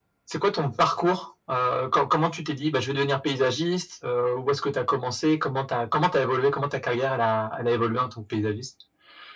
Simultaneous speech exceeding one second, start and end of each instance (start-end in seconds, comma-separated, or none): none